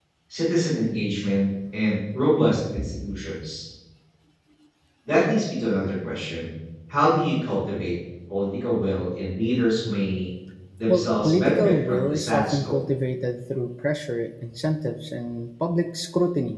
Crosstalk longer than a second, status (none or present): present